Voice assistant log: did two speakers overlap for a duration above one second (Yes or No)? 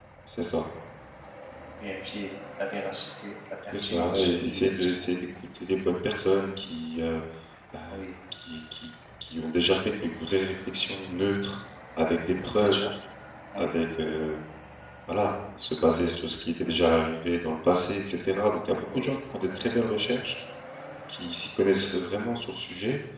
Yes